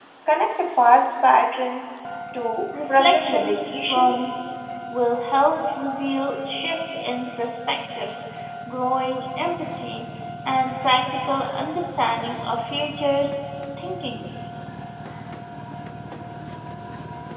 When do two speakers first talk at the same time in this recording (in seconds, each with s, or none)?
2.9 s